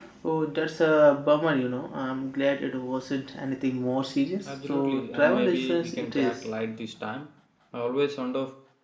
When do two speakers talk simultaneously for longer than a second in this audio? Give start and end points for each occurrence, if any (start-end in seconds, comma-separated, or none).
4.5-6.4